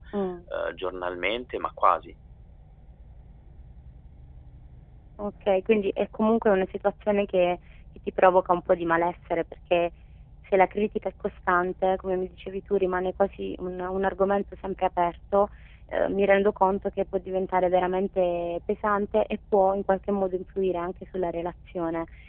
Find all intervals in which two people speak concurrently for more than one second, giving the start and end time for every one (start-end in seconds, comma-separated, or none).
none